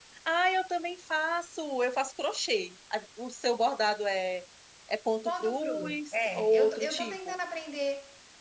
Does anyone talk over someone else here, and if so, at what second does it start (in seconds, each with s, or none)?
5.2 s